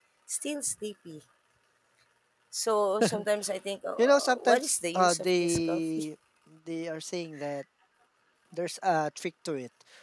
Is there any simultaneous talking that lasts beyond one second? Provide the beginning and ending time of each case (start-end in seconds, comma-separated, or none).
4.0-6.0